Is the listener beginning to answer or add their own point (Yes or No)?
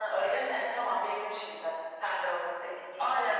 Yes